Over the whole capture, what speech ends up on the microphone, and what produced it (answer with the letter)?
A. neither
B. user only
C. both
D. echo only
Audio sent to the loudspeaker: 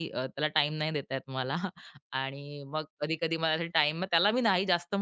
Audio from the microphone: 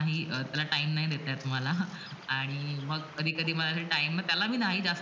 D